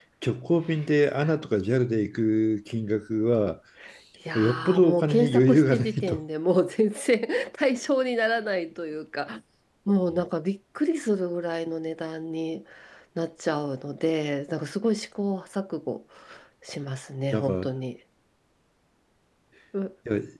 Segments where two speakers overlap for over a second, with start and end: 4.4-6.2

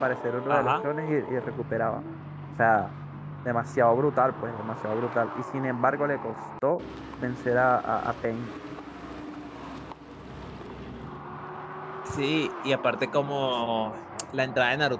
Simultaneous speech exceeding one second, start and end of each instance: none

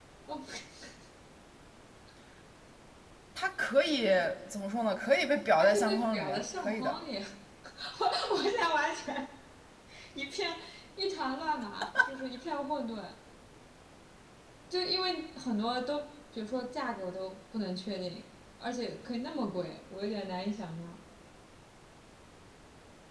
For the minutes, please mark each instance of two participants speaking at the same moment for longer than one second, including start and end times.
5.6-7.0

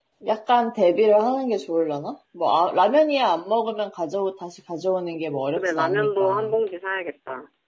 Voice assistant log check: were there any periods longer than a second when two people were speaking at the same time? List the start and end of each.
5.1-6.5

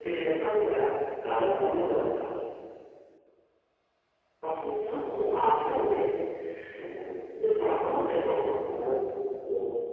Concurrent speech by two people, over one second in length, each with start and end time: none

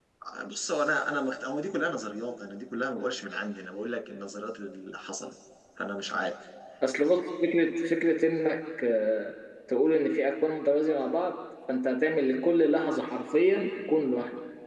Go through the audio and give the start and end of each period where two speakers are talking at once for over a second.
none

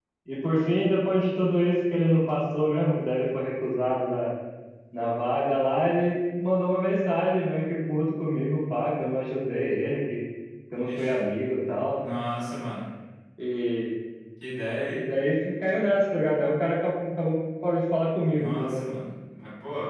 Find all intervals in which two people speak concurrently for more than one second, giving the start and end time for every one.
none

